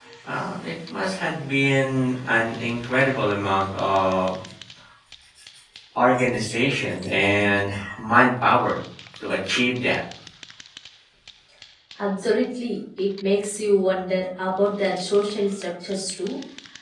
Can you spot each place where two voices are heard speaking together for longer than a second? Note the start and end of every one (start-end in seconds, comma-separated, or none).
none